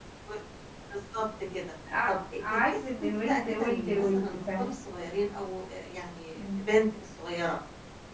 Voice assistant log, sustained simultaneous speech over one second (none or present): present